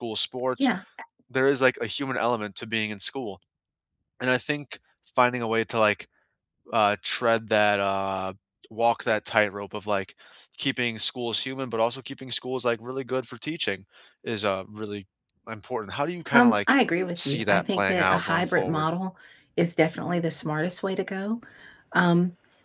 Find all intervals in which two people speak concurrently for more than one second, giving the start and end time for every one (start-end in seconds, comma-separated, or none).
17.2-18.9